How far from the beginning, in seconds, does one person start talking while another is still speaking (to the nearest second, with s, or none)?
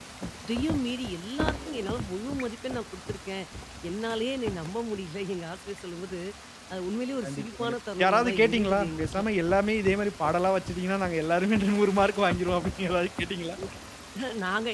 7 s